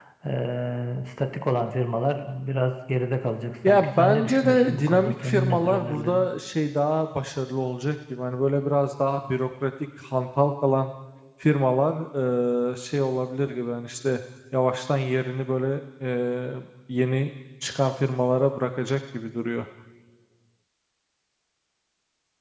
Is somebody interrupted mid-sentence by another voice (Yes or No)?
Yes